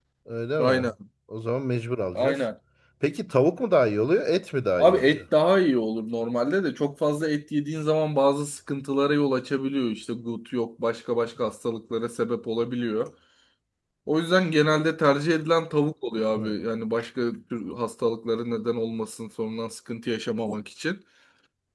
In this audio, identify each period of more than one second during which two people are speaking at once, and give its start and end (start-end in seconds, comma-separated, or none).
none